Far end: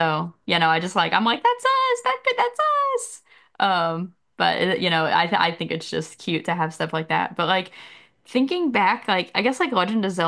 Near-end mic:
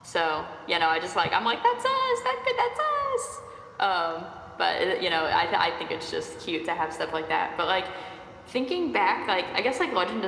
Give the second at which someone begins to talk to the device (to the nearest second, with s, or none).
none